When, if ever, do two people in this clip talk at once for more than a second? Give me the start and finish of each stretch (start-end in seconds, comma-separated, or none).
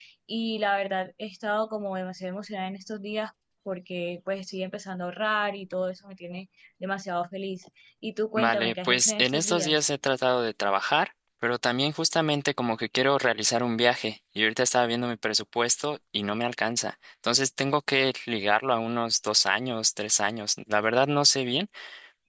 8.4-9.8